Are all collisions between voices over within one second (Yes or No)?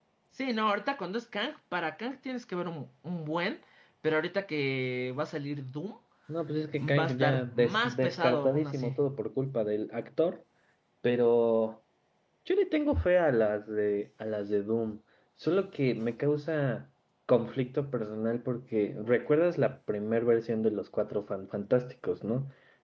No